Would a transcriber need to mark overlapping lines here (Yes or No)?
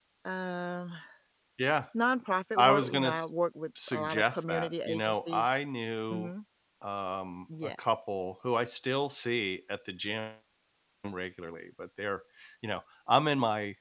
Yes